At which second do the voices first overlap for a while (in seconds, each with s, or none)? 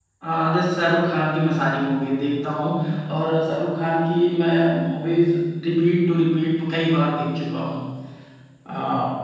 none